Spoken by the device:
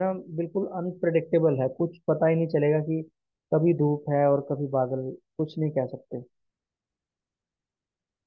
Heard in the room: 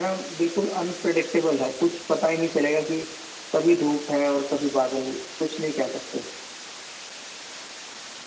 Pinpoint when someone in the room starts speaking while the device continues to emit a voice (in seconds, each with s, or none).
none